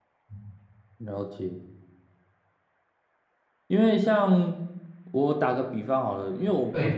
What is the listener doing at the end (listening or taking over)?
listening